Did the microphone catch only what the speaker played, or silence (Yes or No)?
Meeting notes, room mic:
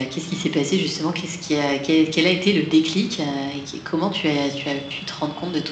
Yes